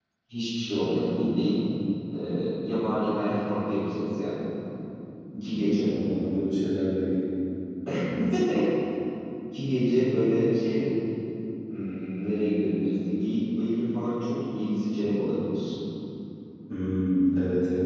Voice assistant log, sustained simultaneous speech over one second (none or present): none